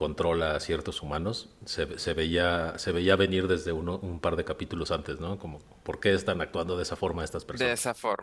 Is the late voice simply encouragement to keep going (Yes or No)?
No